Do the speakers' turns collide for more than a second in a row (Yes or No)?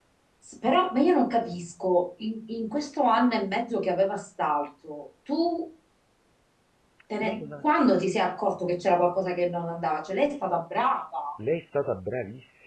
No